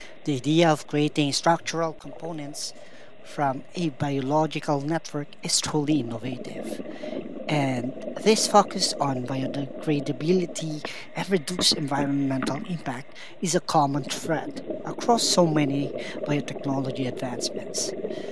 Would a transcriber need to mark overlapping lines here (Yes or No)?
No